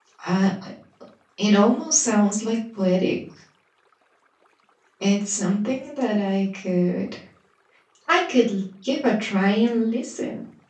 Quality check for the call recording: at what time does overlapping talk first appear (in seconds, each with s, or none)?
none